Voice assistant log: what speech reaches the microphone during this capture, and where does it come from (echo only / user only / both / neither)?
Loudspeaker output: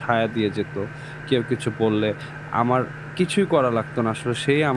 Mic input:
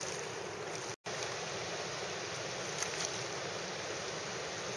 neither